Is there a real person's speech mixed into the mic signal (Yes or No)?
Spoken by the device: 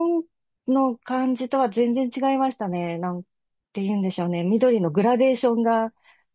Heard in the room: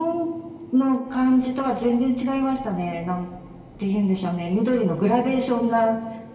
No